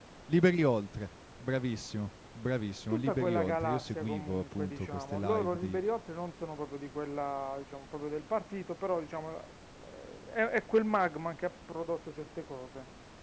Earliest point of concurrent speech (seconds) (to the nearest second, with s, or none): 3 s